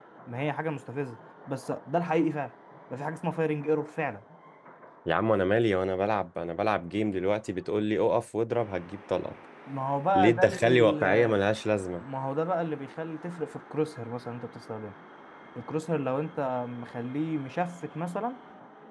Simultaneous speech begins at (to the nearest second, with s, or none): 10 s